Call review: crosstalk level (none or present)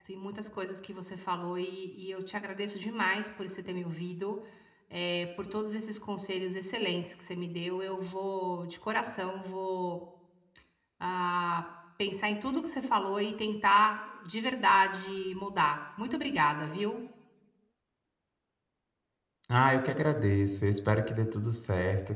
none